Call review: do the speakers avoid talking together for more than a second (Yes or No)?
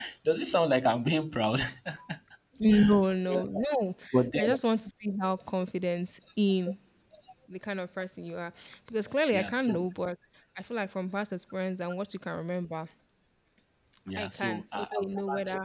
No